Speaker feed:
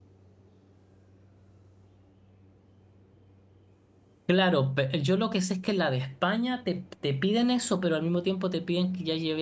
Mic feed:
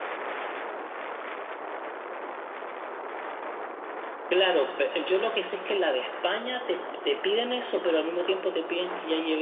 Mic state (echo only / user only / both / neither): echo only